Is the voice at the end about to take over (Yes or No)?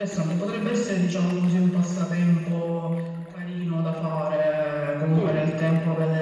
No